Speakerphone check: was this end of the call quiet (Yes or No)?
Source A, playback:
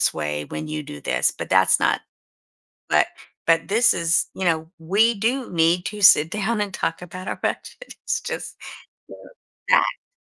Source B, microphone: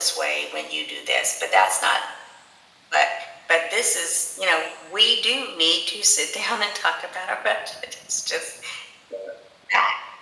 Yes